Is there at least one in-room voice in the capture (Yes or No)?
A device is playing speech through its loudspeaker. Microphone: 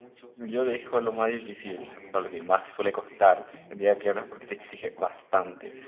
Yes